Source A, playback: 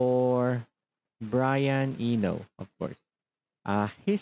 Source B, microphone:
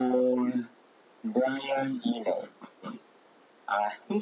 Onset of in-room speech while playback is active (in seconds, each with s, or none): none